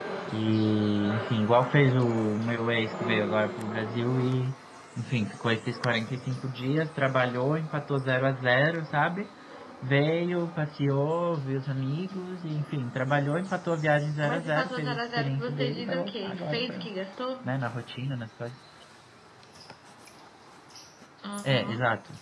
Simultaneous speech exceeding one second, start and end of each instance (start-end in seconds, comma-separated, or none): 14.2-16.9